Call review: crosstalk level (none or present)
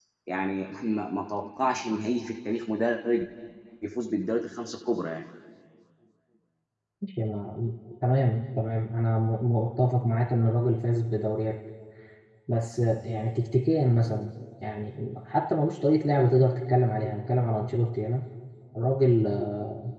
none